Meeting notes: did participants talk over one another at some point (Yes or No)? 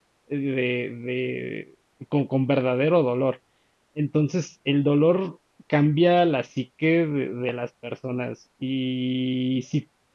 No